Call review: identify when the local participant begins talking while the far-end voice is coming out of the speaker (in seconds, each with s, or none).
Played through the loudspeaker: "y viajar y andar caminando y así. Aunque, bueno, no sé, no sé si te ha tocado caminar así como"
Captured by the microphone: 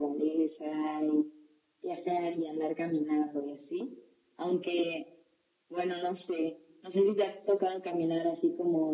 none